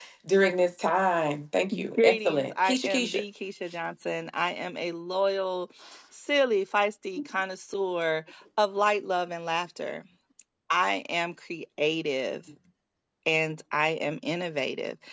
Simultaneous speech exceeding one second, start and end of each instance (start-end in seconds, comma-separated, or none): 2.0-3.2